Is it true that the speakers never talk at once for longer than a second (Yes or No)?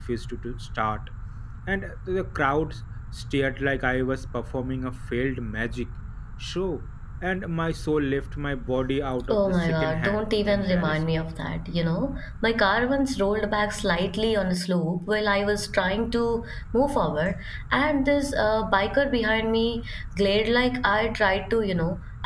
No